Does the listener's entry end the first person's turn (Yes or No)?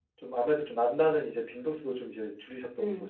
Yes